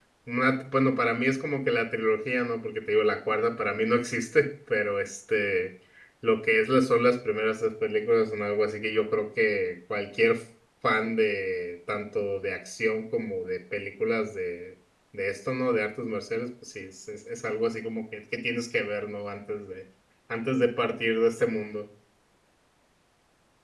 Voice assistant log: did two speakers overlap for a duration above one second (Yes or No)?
No